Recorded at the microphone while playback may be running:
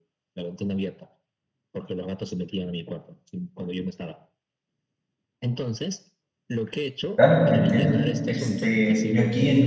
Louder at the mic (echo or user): user